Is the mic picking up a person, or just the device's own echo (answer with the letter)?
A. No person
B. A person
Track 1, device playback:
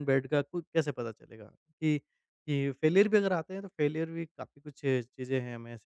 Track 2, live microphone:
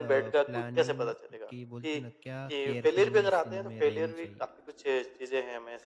B